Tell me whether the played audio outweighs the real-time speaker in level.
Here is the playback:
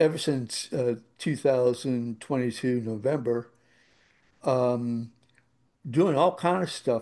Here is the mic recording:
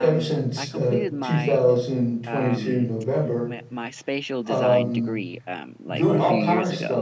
Yes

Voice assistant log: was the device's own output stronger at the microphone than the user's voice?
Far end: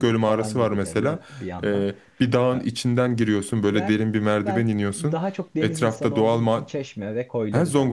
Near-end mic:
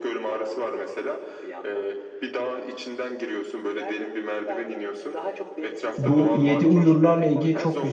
No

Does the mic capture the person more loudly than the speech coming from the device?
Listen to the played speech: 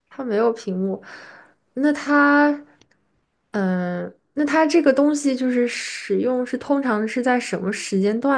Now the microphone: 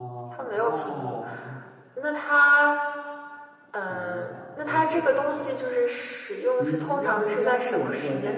No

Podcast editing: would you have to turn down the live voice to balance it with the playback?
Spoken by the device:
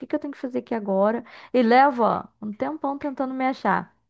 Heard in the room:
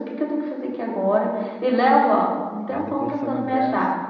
No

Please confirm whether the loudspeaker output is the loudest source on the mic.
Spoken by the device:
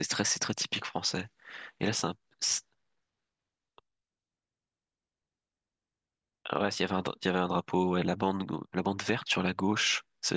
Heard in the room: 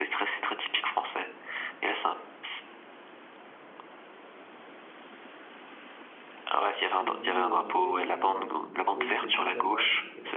Yes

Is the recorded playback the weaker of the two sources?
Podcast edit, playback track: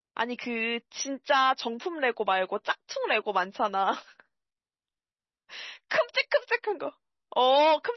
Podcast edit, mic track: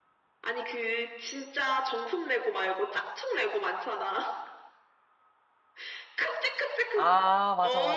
Yes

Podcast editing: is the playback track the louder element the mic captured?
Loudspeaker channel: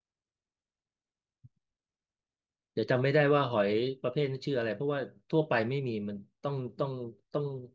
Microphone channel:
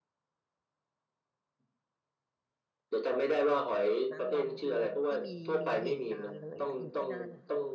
Yes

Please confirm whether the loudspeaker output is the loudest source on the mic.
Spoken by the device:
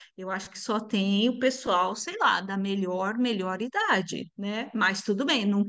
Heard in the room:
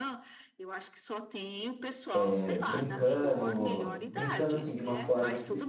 No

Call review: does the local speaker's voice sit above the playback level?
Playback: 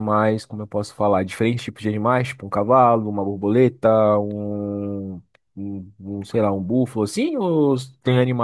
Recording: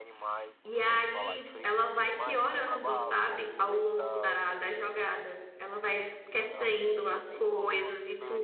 Yes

